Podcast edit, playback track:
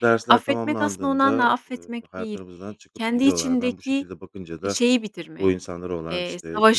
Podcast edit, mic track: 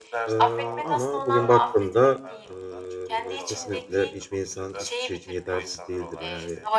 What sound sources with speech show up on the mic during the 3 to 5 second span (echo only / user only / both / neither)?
both